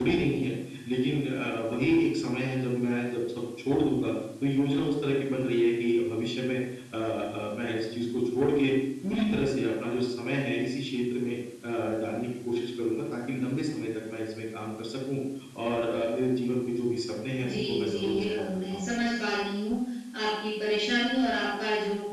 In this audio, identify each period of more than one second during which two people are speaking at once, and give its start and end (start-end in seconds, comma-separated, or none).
17.5-18.8